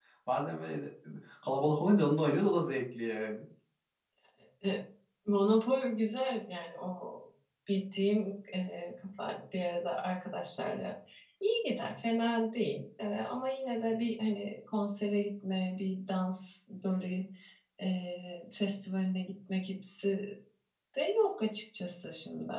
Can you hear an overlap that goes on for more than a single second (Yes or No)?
No